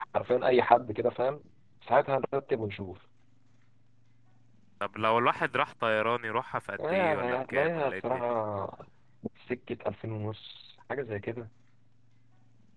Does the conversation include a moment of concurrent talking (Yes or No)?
Yes